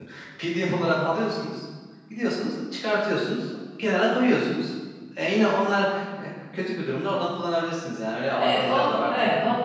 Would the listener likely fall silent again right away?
No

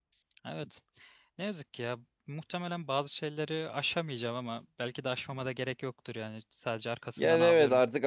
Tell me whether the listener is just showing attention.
No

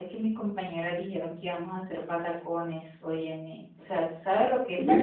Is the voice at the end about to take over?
Yes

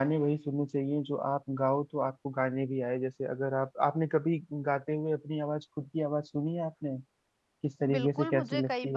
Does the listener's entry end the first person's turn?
Yes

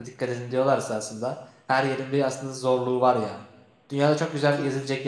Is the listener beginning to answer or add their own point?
No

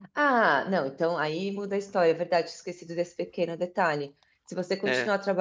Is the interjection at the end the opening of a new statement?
No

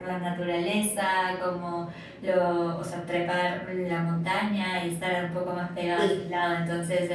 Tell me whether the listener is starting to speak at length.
No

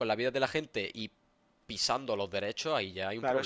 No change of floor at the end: No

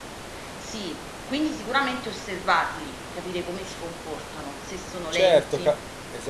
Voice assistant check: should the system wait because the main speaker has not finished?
No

